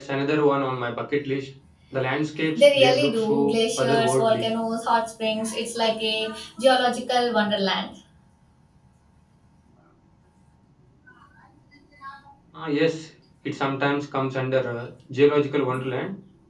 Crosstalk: present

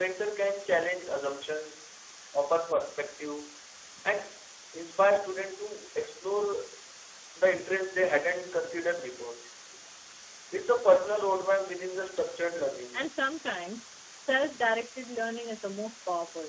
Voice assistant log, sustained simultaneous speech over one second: none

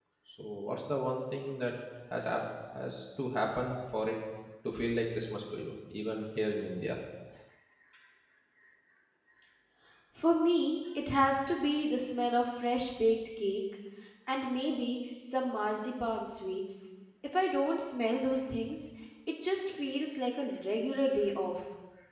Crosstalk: none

